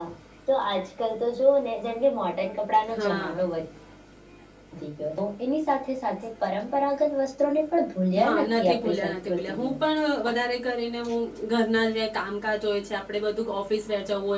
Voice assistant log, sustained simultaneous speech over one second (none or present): present